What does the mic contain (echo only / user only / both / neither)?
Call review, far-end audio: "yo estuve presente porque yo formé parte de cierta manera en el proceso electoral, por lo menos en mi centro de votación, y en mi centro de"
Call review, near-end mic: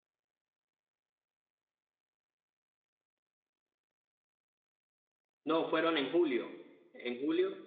user only